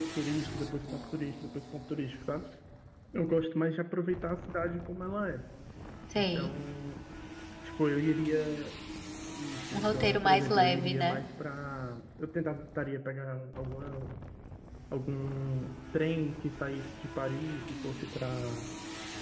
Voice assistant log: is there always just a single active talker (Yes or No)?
No